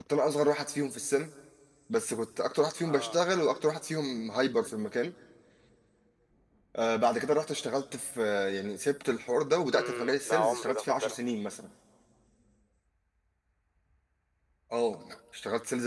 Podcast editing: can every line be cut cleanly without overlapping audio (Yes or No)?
No